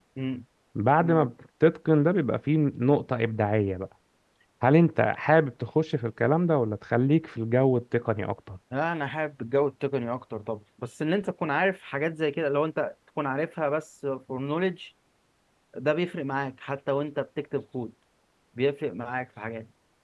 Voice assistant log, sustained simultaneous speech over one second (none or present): none